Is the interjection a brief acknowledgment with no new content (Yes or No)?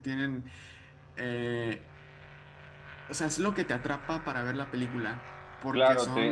No